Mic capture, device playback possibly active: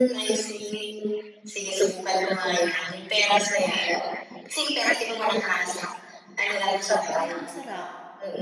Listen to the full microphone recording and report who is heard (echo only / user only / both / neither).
both